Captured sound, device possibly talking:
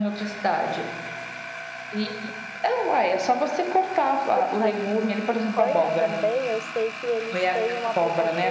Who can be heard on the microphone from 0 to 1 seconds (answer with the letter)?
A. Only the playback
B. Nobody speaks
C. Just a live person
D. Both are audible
A